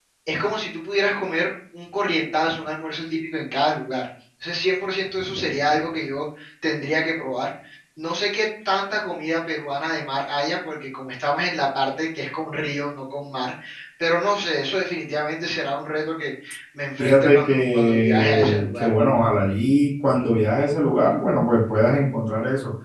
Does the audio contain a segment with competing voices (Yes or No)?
Yes